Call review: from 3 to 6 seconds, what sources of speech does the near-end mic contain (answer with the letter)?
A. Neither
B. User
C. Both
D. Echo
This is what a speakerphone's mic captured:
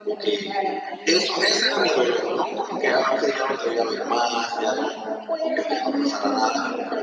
C